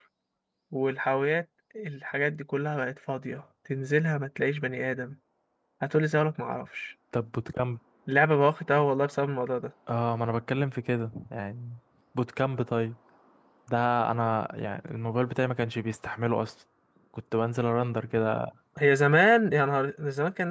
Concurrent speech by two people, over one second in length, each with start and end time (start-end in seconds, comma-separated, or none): none